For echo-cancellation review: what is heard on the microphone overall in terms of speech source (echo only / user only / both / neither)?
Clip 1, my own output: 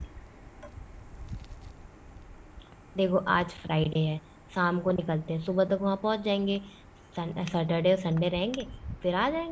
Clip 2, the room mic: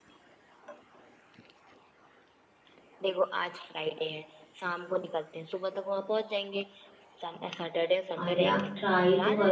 both